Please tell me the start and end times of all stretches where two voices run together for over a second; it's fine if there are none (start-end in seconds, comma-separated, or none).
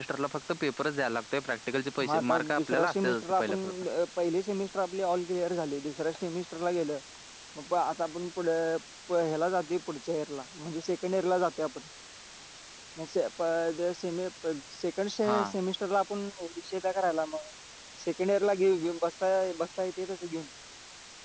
2.0-3.5